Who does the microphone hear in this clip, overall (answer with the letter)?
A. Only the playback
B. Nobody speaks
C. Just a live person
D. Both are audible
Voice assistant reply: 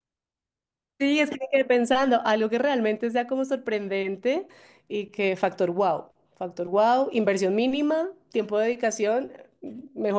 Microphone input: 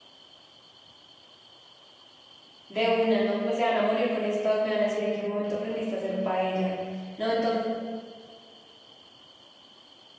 C